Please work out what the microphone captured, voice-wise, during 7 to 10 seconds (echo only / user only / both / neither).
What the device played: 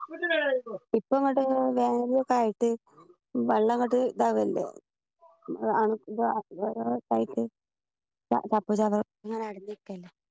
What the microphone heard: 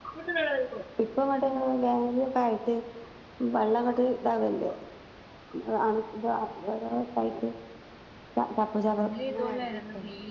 both